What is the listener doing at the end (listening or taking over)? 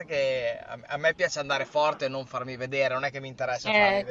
taking over